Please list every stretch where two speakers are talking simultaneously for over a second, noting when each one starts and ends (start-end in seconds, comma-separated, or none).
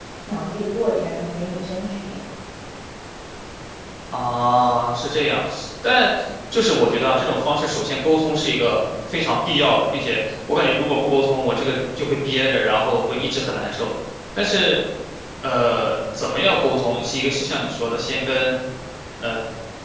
none